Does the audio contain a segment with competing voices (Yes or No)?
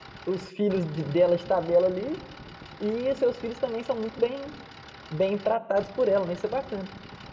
No